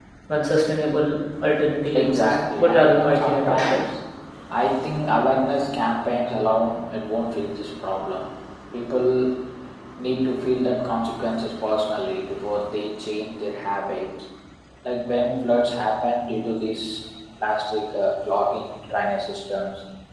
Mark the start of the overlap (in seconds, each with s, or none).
1.9 s